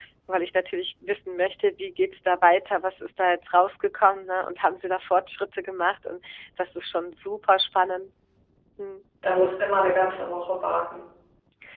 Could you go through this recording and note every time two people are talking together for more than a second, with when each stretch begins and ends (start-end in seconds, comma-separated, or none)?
none